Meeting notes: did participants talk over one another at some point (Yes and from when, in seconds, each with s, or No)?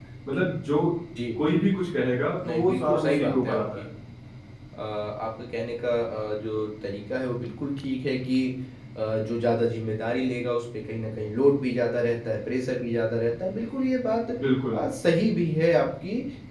Yes, from 2.4 s